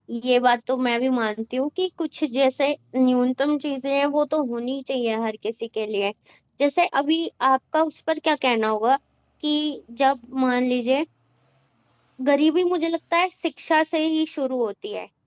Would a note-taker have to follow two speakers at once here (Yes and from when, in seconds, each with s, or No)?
No